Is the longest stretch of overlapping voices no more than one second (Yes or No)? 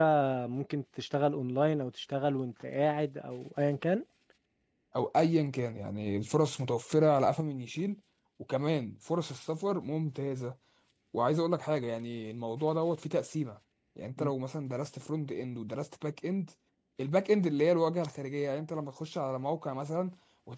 Yes